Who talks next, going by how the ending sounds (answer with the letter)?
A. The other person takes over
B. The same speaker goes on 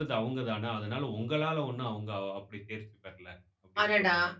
A